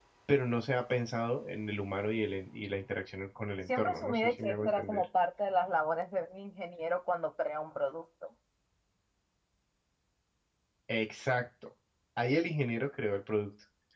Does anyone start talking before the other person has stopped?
Yes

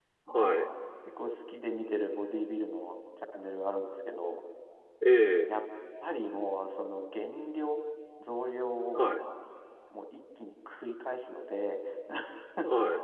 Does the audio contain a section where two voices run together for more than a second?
No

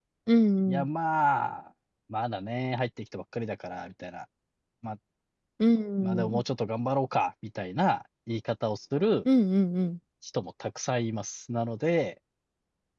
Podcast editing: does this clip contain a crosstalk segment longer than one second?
No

